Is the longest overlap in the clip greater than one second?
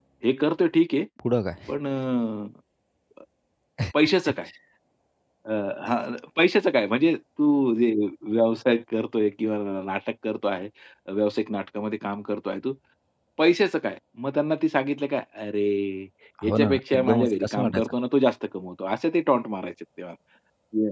Yes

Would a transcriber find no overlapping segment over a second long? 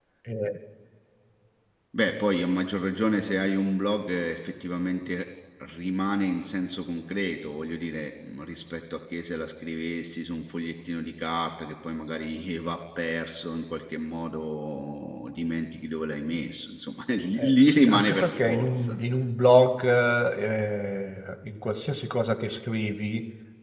No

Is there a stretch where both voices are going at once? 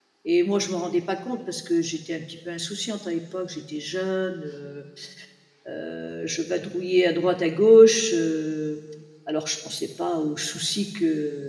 No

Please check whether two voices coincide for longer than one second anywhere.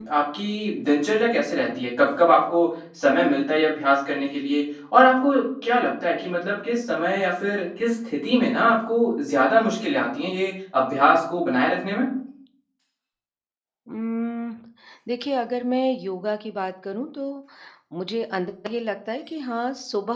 No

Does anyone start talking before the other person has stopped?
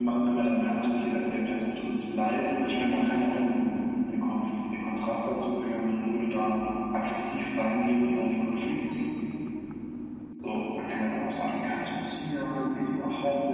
No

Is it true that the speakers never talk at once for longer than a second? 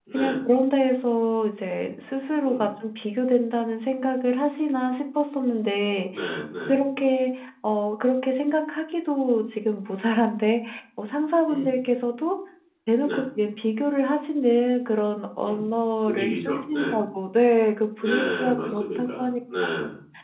No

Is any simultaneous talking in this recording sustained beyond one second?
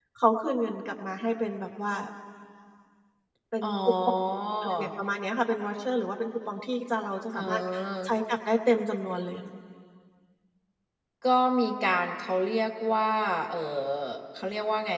No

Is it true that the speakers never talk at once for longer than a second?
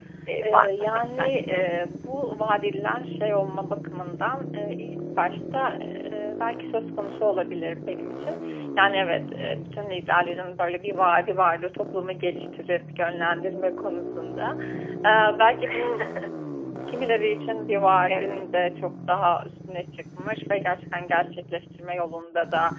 No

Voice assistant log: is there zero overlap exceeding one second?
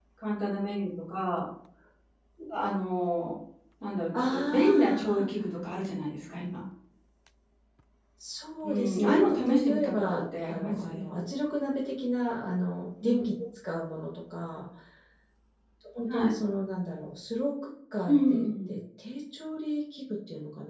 No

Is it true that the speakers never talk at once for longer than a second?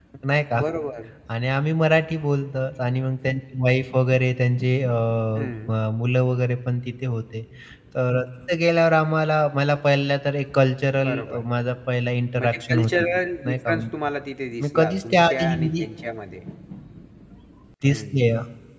No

